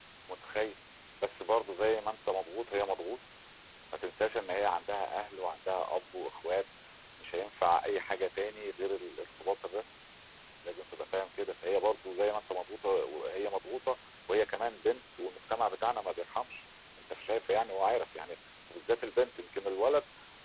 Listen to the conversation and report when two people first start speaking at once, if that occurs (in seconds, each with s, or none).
none